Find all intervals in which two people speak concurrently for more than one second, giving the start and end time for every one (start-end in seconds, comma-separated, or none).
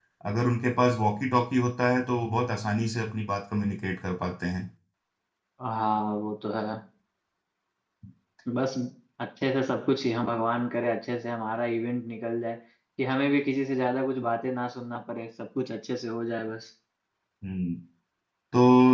none